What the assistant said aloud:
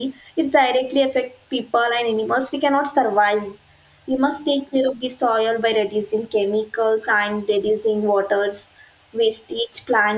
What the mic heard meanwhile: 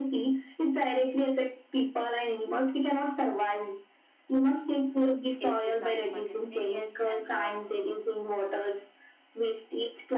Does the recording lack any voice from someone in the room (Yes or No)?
No